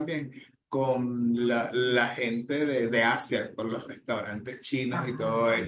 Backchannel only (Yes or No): Yes